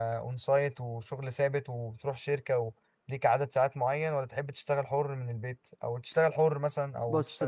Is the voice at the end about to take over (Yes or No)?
Yes